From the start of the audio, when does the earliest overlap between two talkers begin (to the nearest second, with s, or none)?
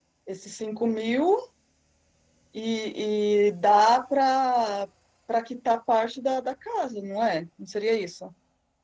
none